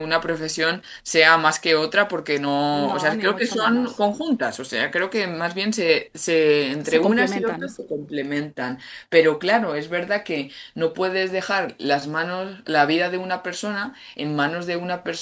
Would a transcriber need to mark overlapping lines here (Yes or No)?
Yes